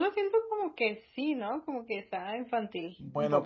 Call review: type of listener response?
taking over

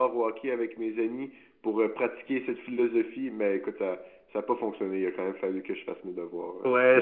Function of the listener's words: taking over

